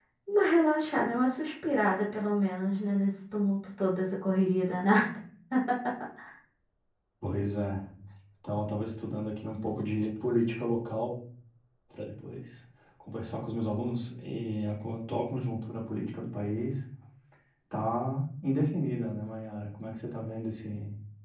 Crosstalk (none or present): none